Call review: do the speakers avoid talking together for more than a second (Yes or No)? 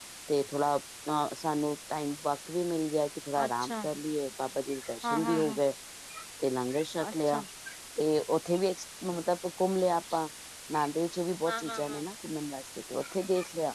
Yes